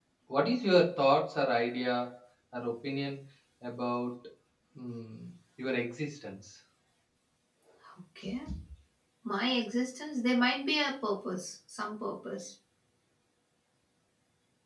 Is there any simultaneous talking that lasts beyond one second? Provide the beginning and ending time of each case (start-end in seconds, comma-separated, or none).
none